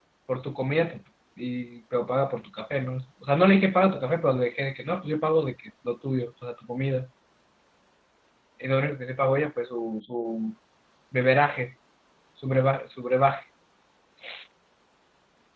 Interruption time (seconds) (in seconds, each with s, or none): none